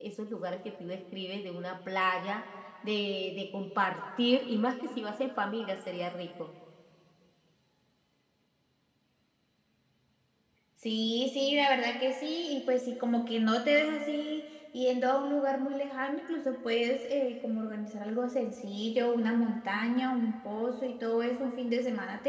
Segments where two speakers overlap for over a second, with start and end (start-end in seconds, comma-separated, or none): none